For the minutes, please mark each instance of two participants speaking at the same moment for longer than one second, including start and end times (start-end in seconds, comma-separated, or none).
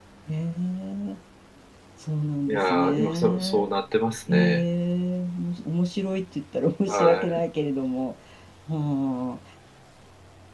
2.5-3.7